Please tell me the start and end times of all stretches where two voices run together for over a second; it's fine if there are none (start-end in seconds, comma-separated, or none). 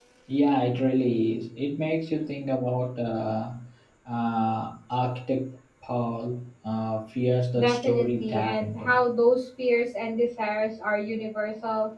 7.6-9.0